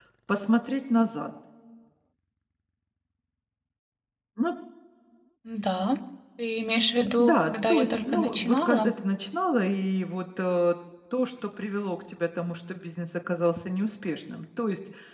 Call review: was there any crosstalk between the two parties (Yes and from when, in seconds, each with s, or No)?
Yes, from 7.2 s